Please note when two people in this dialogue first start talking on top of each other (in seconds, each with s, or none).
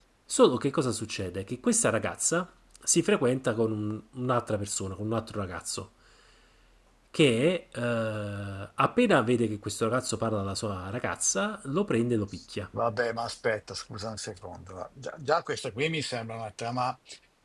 none